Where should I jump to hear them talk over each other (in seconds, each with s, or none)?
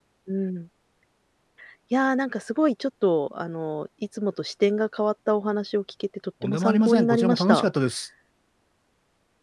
6.4 s